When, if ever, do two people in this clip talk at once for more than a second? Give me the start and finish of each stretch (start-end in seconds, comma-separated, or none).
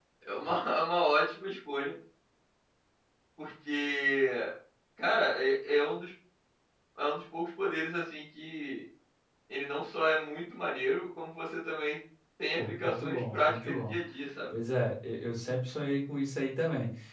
12.6-13.9